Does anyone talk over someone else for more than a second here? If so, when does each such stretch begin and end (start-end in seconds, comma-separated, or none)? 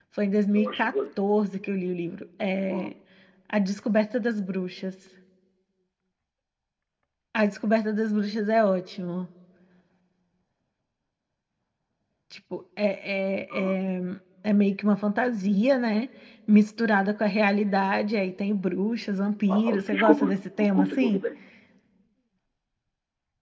19.5-21.2